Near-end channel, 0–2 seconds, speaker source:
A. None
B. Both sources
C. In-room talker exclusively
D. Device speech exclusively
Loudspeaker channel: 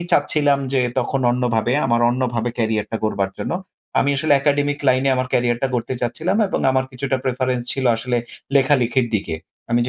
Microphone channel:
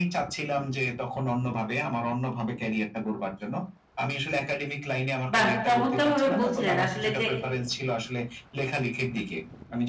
D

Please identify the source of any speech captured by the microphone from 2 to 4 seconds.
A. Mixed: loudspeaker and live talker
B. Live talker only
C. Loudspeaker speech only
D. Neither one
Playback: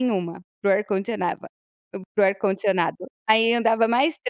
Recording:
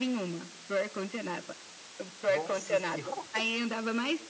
A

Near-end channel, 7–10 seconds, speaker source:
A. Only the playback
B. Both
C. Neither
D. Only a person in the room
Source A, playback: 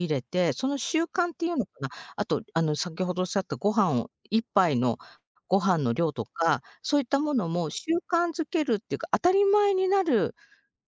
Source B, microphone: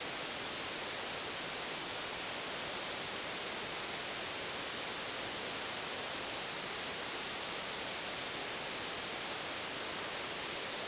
C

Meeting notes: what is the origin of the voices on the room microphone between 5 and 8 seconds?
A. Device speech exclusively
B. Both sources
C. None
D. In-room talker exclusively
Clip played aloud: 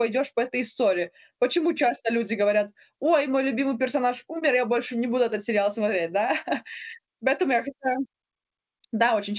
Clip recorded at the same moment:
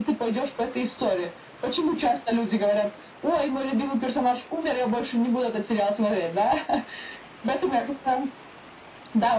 A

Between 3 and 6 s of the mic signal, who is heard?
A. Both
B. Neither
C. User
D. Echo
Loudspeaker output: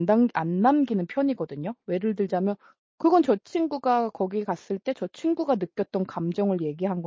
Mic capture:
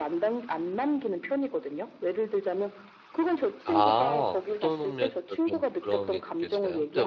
A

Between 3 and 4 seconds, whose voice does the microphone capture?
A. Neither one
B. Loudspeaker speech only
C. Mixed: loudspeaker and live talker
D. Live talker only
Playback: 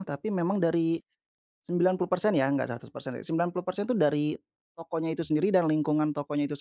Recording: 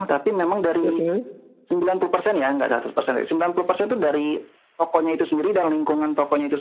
B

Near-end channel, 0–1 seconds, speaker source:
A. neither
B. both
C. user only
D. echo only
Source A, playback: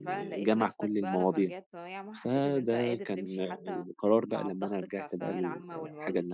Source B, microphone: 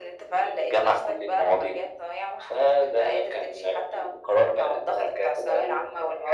D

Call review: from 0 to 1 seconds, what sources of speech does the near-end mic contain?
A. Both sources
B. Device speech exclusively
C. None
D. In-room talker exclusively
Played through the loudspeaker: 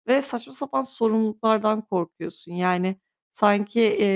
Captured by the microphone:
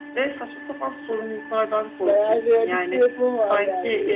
B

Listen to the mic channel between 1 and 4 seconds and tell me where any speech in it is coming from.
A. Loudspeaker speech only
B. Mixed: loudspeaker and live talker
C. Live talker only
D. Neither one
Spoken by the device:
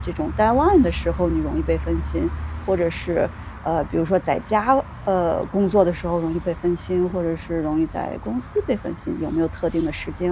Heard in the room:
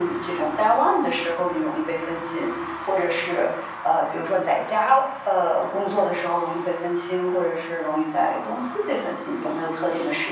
A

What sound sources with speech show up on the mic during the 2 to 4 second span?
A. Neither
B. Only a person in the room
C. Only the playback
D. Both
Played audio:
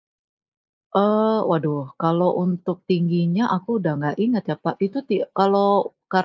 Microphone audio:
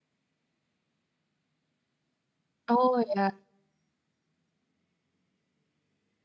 B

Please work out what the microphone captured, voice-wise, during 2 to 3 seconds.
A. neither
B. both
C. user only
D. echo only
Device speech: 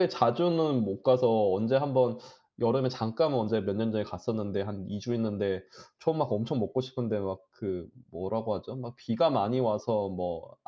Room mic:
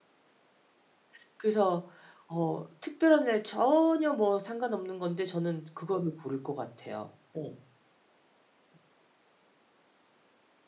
C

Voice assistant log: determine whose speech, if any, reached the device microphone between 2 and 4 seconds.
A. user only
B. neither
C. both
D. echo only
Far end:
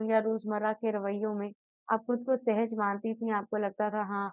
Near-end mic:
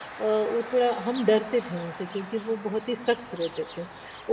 A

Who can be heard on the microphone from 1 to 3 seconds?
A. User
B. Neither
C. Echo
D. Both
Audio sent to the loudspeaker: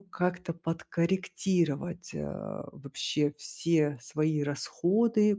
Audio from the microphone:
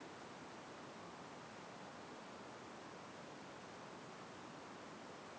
B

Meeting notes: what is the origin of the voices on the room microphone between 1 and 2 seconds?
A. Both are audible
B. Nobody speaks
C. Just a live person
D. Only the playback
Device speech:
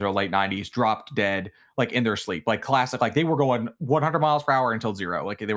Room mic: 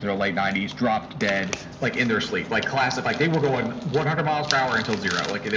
D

